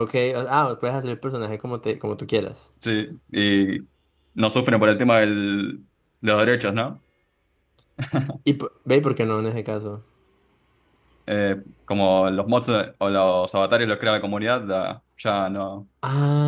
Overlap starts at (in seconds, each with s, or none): none